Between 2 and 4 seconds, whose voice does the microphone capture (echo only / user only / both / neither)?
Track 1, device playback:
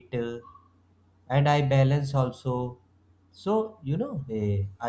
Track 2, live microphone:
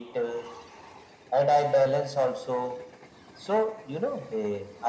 echo only